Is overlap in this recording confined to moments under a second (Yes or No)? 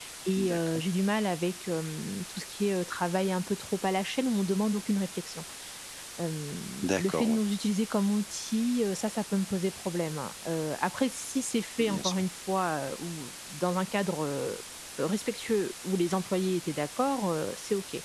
Yes